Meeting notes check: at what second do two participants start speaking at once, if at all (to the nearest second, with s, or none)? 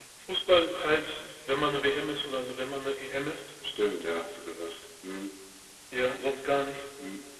none